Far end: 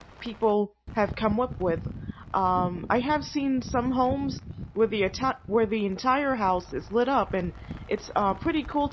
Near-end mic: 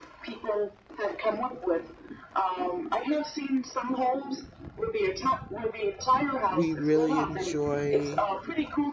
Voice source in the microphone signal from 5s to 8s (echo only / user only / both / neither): both